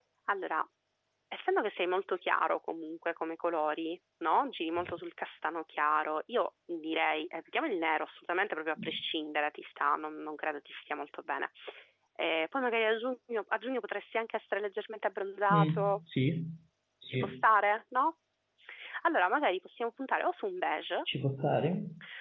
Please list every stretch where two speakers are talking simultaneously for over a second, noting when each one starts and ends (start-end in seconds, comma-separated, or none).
none